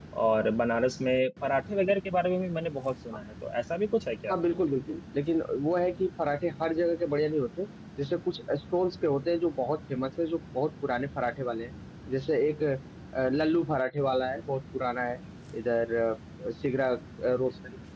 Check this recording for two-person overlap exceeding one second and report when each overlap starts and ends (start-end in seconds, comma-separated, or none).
none